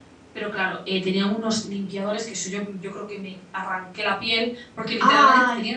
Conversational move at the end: listening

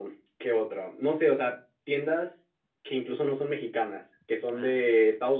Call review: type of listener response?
listening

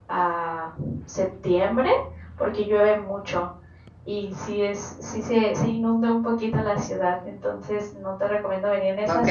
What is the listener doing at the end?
taking over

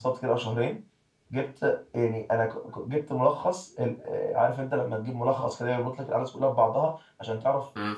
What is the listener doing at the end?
listening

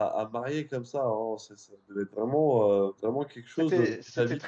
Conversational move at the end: taking over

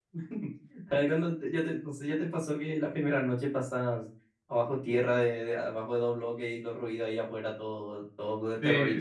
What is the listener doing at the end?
taking over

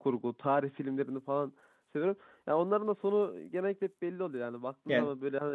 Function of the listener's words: listening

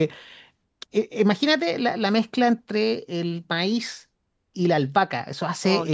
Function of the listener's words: listening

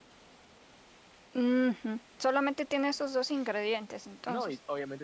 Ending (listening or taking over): taking over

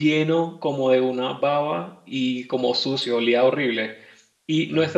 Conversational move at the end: listening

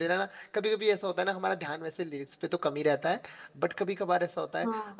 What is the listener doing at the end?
listening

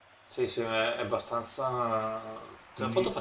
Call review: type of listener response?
listening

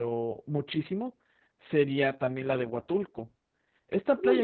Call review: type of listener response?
taking over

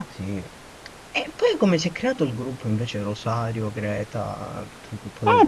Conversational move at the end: taking over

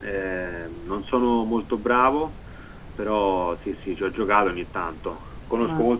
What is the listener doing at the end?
listening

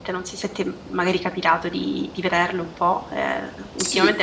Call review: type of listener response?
taking over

